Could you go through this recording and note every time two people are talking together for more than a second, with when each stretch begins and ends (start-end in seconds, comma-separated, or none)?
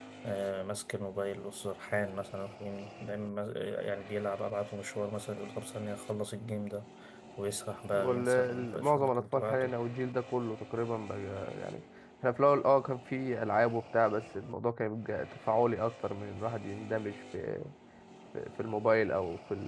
7.9-9.8